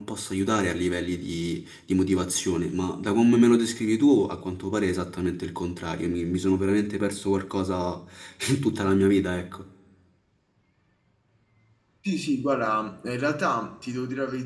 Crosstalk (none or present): none